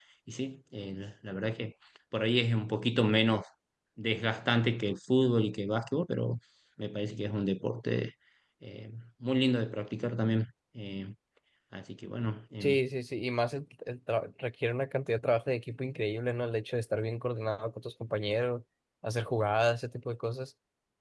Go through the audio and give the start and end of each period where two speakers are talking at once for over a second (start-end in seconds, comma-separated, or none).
none